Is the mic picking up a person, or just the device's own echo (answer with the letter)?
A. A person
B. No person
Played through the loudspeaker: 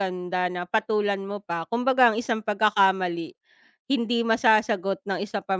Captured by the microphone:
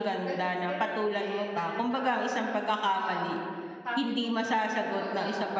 A